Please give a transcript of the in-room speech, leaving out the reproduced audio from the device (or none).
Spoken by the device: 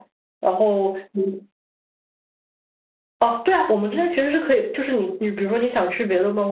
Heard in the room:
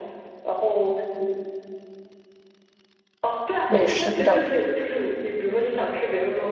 美食比较多。